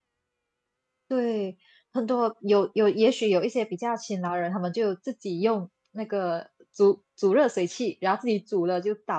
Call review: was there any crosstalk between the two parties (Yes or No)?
No